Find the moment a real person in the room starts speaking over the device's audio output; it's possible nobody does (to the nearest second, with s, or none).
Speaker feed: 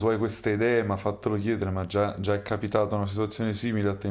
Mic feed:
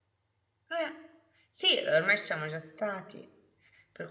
1 s